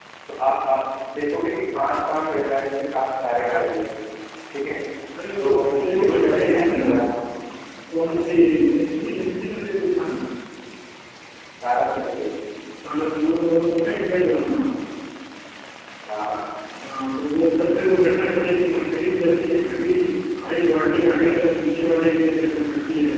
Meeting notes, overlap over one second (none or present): present